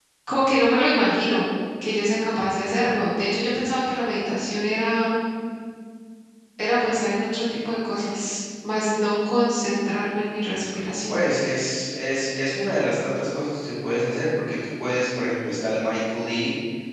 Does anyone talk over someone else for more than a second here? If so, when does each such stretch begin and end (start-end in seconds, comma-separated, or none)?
none